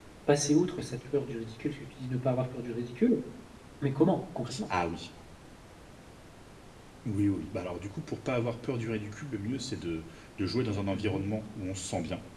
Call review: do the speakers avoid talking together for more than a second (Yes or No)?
Yes